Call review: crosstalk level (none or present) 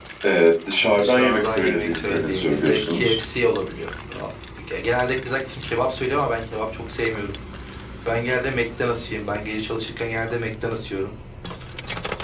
present